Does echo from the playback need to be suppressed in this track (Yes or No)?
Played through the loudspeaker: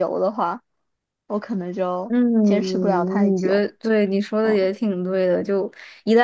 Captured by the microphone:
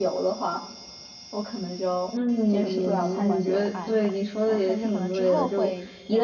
Yes